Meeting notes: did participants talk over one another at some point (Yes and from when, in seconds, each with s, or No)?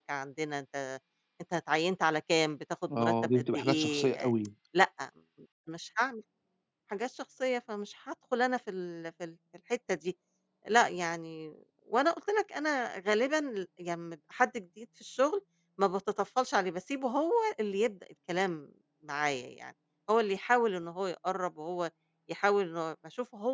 Yes, from 2.9 s